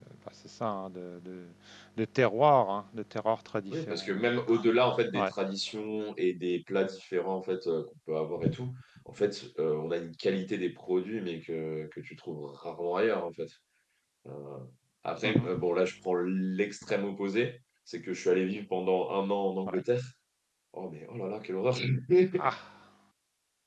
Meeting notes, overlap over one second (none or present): none